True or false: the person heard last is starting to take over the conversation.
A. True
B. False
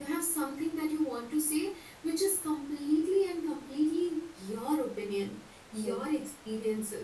B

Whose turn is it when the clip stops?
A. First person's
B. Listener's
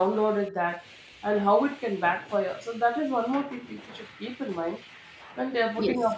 A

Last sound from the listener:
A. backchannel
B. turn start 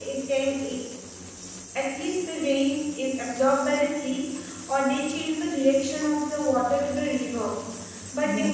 A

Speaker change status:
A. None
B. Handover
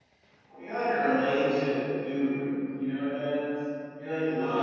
B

